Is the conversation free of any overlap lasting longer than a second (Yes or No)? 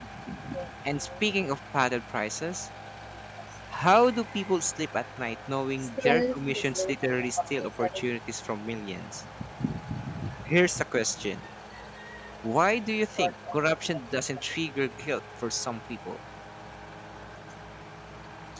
No